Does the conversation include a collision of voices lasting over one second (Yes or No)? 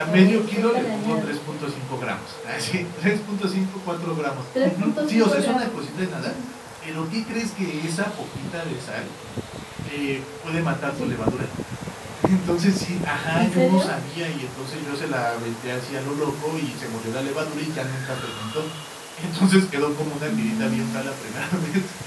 Yes